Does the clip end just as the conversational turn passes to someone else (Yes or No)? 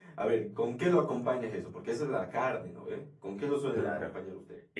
Yes